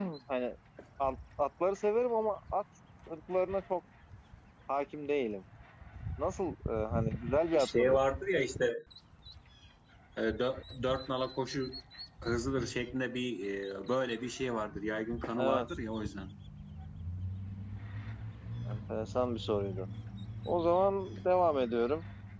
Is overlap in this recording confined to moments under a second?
Yes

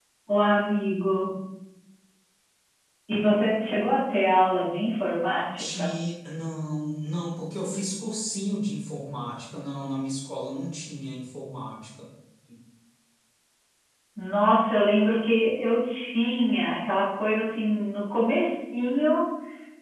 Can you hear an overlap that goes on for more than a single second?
No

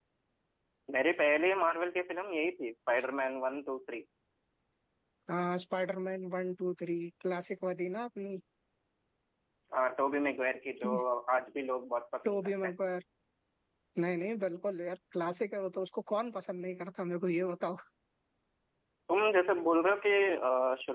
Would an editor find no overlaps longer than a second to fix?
Yes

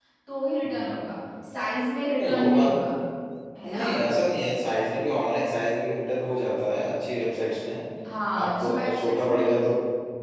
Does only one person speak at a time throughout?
No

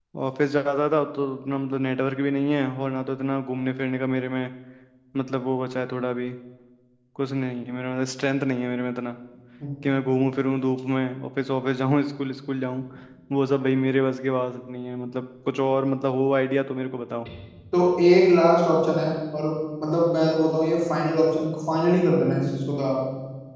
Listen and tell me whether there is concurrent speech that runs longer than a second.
No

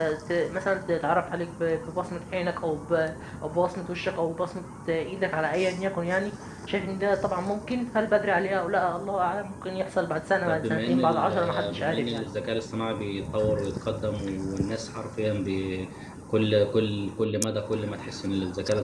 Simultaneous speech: Yes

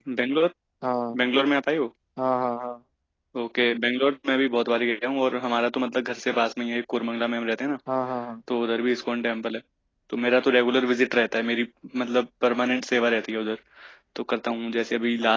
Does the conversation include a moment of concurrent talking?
No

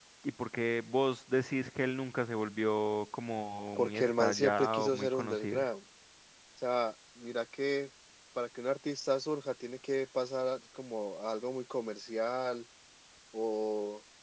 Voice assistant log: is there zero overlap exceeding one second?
No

